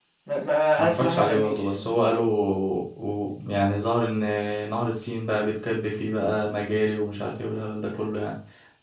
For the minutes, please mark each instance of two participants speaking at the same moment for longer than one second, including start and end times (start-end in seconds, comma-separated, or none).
0.8-2.0